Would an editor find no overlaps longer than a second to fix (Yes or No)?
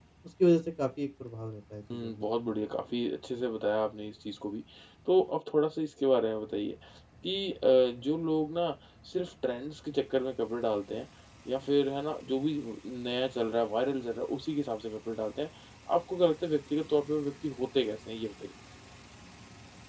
Yes